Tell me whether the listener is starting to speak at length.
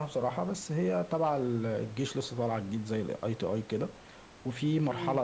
No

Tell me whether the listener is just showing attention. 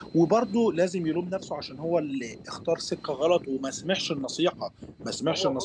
Yes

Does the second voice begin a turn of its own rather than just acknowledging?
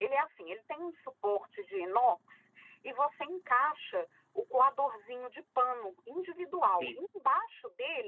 No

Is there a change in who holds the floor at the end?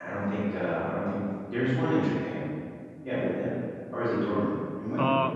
Yes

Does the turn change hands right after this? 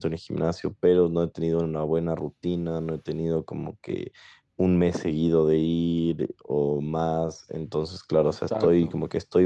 No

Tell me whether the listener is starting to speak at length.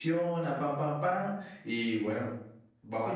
Yes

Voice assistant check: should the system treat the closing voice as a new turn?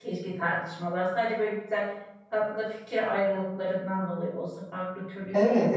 Yes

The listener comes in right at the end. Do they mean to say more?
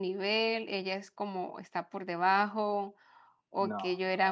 No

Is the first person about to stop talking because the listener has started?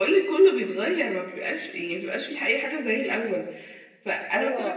No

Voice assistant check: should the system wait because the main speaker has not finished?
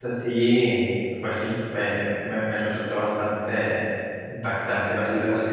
No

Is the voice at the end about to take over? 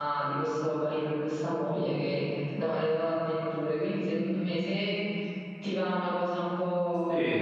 Yes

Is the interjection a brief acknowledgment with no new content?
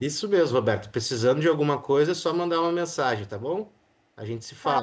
No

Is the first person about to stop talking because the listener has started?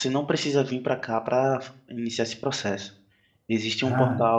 No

